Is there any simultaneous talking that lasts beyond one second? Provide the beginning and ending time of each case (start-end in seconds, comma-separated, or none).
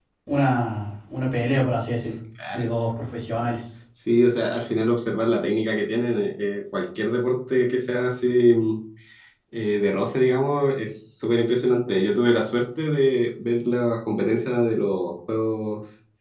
none